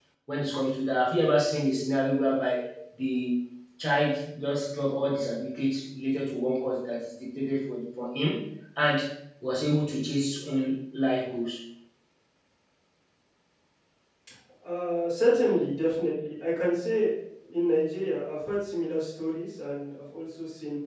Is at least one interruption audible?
No

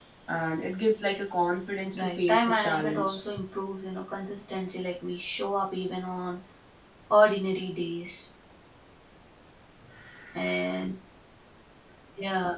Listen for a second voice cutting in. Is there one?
Yes, from 1.9 s

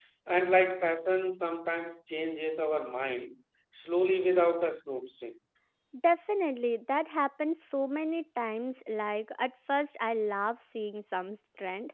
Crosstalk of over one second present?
No

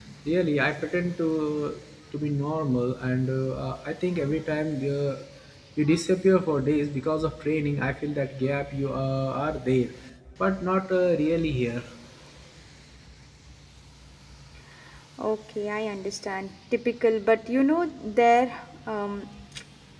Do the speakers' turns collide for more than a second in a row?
No

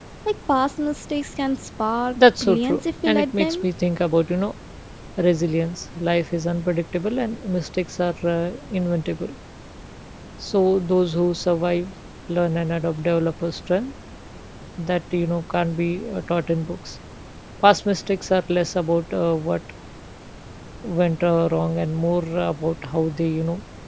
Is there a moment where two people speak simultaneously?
Yes, from 2.2 s

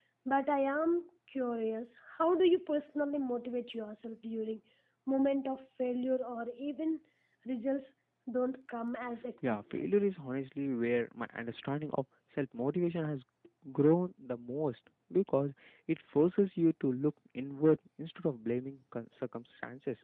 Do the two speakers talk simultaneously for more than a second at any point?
No

